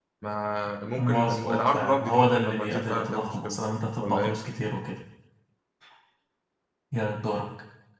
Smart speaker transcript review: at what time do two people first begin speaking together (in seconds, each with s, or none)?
1.0 s